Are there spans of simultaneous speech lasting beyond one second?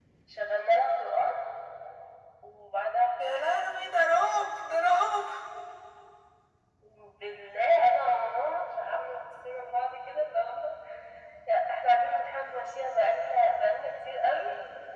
No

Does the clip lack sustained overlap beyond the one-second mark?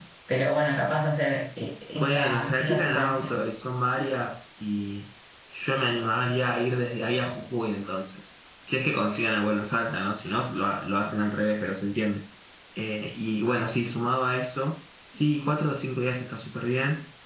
No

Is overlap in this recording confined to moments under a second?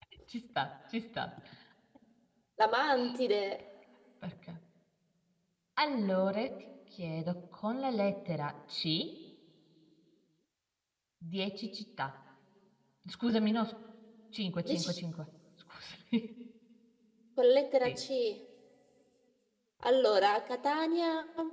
Yes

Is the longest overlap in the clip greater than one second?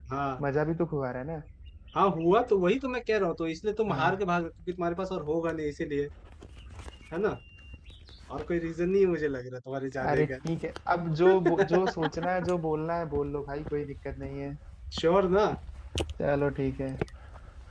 No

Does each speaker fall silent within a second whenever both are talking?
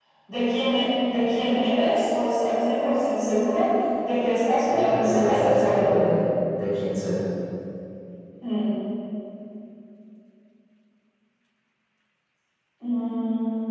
No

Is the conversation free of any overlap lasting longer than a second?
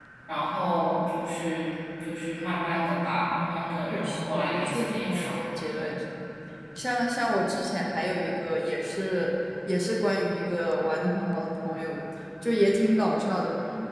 No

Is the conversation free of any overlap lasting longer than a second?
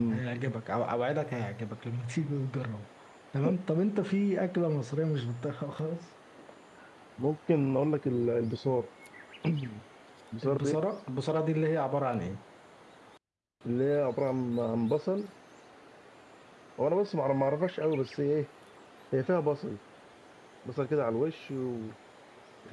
Yes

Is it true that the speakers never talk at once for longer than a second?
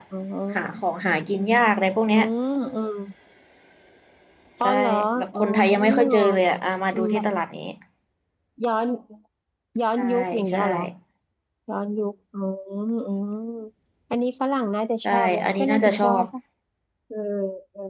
No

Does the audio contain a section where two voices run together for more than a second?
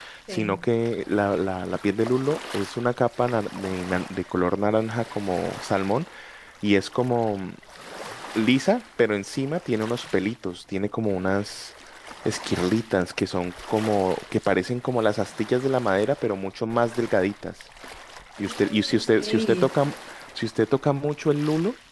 Yes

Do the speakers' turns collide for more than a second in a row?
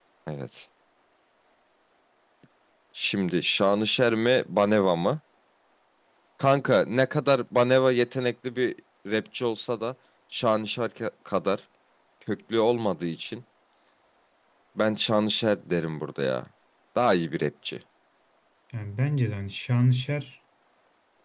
No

